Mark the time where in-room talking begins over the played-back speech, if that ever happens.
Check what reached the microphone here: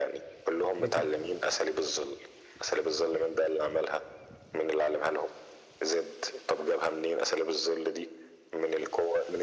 0.8 s

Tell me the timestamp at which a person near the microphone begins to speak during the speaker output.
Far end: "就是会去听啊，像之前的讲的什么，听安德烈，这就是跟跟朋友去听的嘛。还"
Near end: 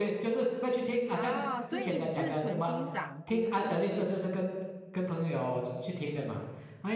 1.1 s

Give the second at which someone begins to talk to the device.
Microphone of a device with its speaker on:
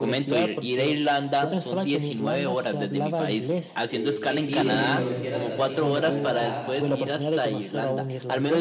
3.8 s

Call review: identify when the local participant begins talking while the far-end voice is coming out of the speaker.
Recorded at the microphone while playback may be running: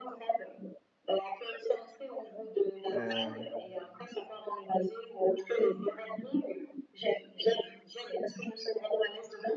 2.9 s

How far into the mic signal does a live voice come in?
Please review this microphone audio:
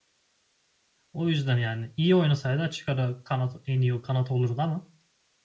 1.1 s

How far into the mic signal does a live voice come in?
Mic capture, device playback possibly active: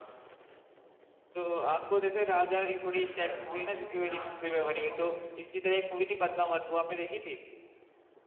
3.0 s

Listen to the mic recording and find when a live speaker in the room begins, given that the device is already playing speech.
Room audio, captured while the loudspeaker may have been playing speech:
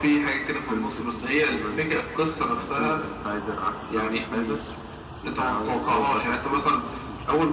none

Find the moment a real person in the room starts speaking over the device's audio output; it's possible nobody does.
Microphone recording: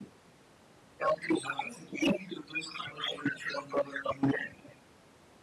none

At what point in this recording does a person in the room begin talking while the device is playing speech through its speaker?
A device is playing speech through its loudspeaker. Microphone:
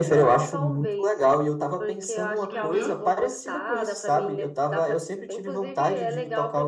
2.5 s

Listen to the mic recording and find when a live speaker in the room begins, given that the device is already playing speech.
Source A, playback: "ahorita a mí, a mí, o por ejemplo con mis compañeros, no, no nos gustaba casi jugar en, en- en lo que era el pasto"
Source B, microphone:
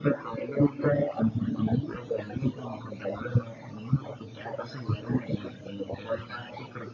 none

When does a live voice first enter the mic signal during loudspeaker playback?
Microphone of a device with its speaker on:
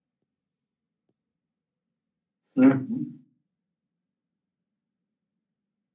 2.6 s

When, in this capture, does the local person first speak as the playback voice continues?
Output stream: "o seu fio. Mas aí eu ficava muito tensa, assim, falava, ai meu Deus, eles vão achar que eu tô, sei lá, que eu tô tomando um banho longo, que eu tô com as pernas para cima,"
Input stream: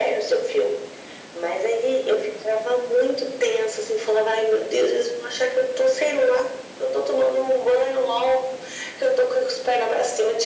none

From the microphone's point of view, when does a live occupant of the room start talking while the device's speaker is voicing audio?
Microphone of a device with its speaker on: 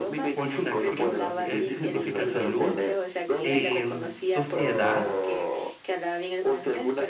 0.3 s

